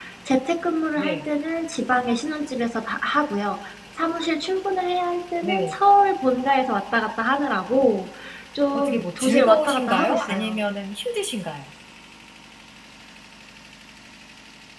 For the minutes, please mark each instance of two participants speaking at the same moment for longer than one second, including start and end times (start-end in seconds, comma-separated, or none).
8.7-10.6